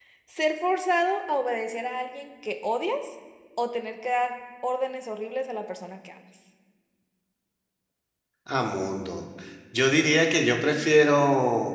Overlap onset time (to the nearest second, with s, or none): none